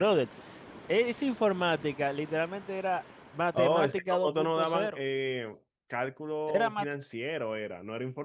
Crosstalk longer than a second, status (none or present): present